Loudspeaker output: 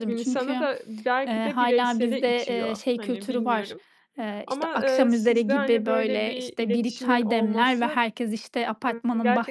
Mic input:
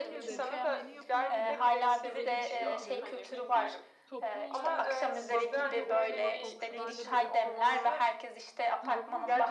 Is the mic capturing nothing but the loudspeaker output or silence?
No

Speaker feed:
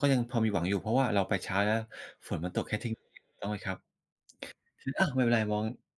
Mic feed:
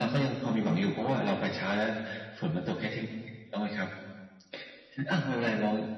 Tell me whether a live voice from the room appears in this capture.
No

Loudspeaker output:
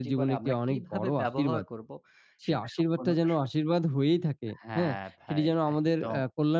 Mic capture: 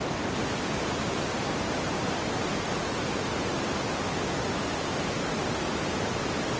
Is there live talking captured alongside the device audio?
No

